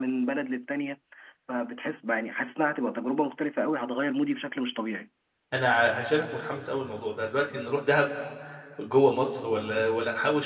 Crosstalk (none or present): none